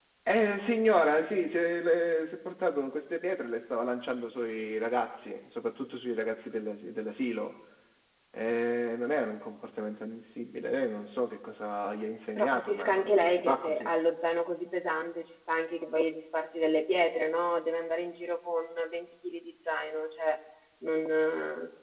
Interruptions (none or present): present